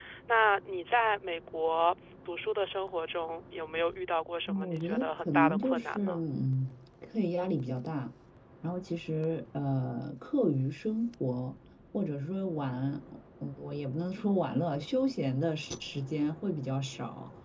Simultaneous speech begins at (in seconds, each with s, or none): 4.5 s